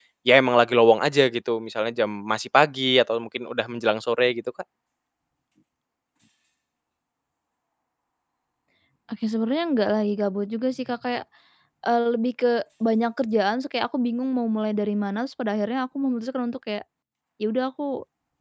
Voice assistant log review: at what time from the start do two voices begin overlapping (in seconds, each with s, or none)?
none